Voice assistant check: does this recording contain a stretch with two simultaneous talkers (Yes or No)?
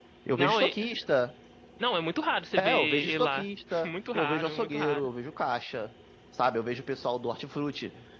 Yes